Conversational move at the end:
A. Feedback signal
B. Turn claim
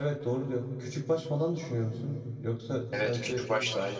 B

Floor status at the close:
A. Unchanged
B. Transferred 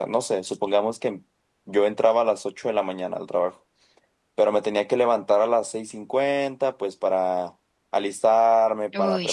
A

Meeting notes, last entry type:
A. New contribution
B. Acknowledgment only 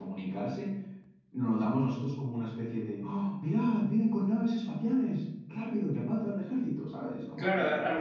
A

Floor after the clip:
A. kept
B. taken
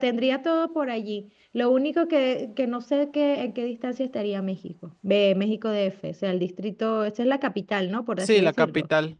B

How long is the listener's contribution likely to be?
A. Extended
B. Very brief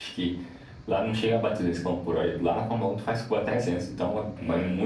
B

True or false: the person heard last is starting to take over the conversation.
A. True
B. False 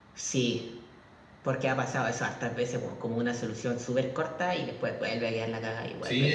A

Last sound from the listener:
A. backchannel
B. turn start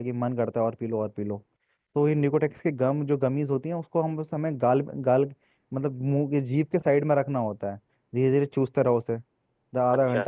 A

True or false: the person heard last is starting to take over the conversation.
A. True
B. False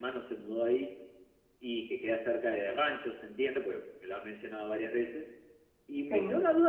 B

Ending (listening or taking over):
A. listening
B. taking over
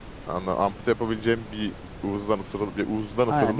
B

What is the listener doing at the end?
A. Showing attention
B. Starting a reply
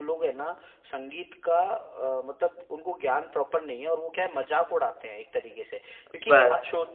A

